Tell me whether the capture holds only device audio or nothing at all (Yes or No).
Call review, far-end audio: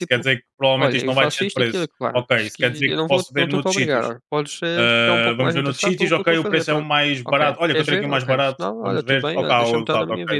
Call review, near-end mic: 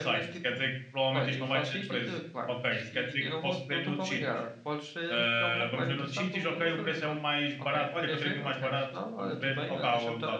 Yes